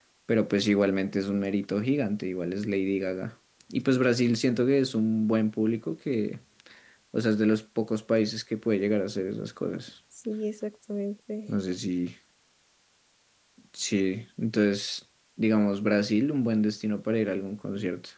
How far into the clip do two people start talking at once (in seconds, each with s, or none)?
none